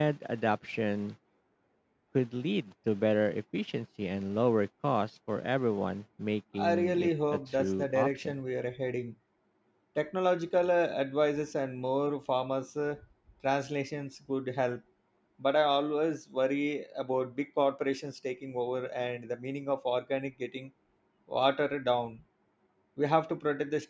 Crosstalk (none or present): present